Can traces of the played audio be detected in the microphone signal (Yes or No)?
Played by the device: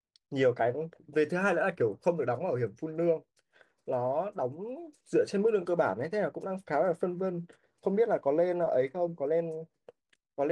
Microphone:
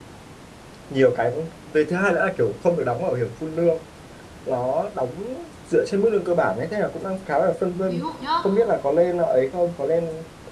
Yes